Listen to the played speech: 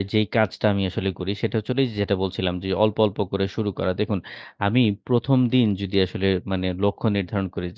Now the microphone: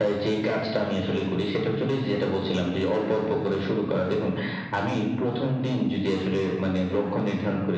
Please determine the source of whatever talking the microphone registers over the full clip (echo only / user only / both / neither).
echo only